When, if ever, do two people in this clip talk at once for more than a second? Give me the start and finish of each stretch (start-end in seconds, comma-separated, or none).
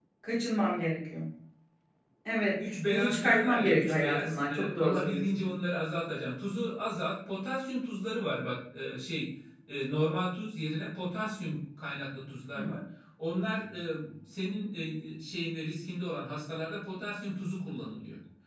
2.6-5.5